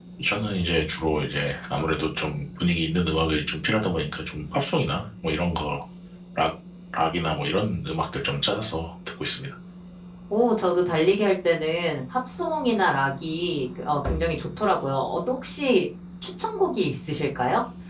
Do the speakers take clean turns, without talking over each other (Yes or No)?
Yes